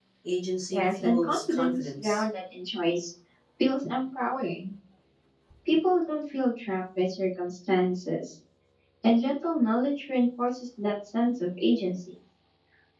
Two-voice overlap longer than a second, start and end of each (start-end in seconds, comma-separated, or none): 0.7-2.2